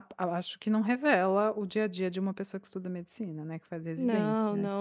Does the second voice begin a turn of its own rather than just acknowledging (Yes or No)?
Yes